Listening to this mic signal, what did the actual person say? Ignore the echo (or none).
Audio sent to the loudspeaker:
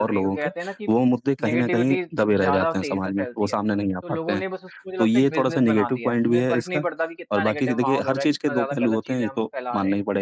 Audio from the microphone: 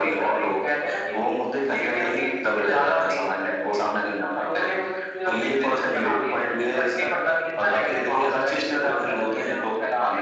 none